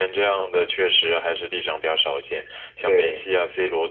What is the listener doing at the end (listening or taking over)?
listening